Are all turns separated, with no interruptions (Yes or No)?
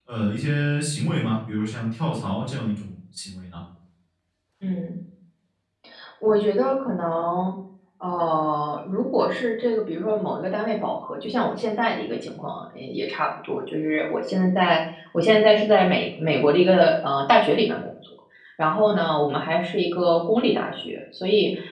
Yes